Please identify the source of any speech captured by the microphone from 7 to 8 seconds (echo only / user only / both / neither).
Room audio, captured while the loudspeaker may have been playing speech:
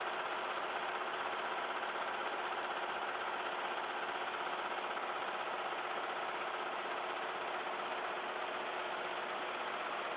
neither